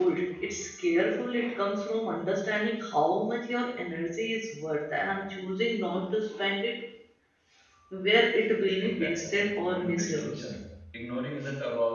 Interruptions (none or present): present